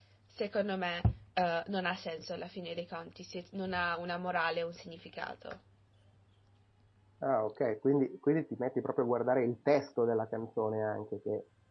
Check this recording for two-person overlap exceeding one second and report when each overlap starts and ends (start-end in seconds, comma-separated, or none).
none